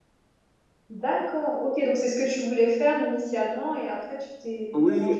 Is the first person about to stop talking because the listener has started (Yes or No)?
Yes